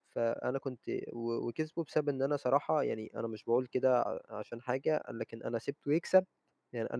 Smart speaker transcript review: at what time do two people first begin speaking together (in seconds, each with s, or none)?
none